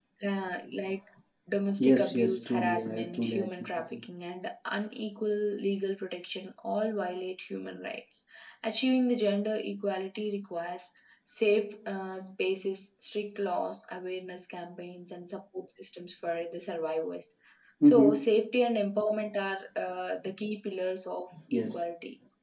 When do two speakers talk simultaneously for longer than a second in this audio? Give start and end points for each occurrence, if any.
1.8-4.0

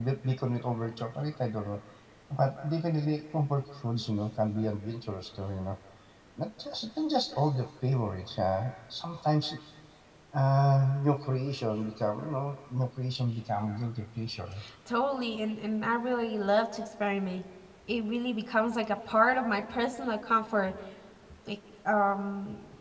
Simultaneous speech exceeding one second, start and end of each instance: none

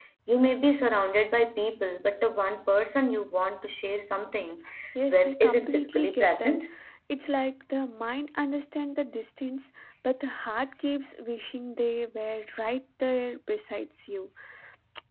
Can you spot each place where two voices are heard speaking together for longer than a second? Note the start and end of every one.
5.1-6.6

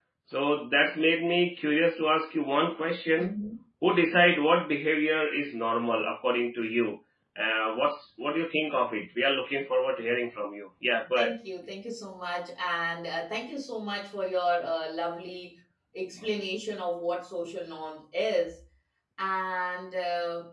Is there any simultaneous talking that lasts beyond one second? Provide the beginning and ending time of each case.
none

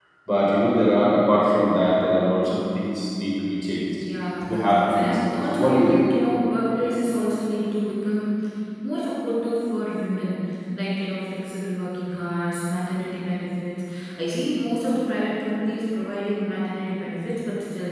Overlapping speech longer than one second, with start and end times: 4.4-6.1

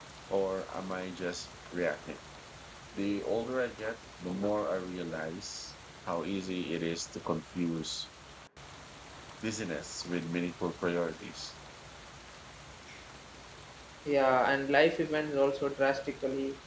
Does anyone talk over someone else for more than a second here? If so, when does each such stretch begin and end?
none

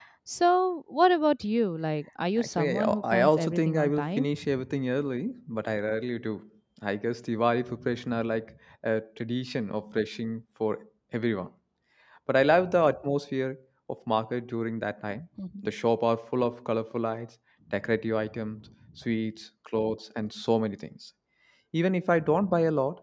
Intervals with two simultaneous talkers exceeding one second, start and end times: 2.4-4.4

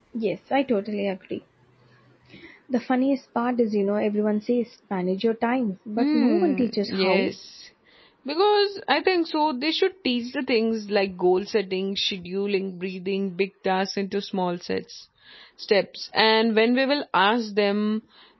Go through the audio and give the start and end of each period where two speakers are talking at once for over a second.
6.0-7.3

